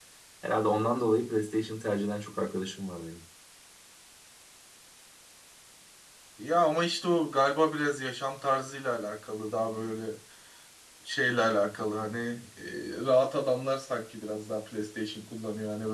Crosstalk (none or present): none